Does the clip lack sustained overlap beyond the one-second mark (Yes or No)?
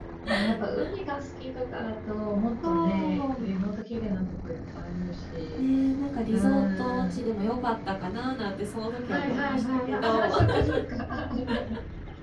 No